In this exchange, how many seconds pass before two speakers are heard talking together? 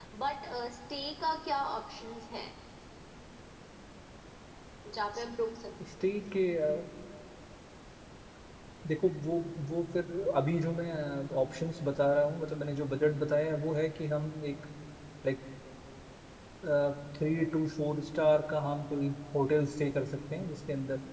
none

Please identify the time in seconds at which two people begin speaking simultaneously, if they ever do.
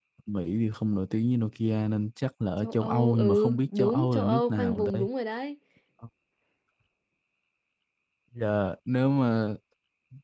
2.6 s

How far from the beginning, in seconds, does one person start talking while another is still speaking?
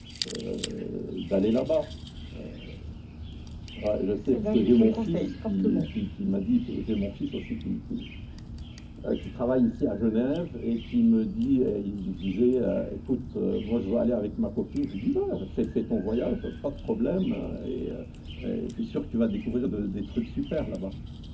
4.3 s

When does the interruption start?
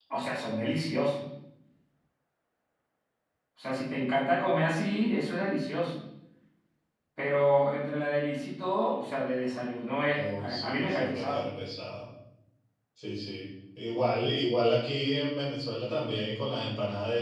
10.1 s

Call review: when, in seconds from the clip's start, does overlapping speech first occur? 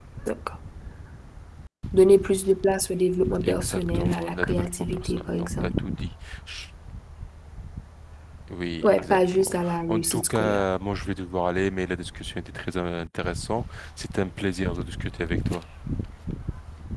3.4 s

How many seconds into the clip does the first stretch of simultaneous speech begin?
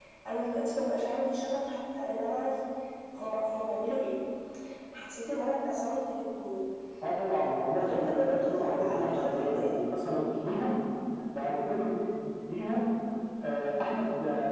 7.8 s

